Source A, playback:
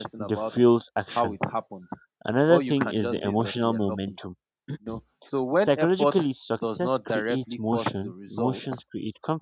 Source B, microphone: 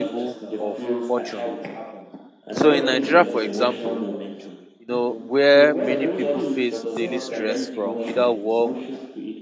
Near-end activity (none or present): present